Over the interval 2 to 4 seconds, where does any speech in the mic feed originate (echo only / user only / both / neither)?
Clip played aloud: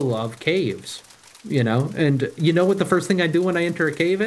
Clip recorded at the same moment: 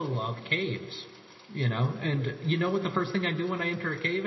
echo only